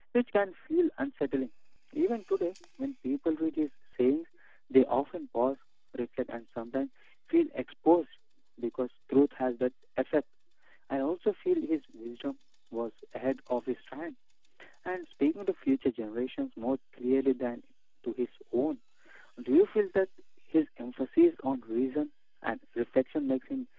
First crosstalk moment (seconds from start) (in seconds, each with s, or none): none